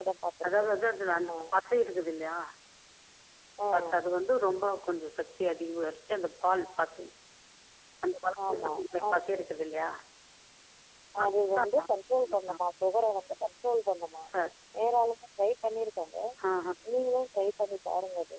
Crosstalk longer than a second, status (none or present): none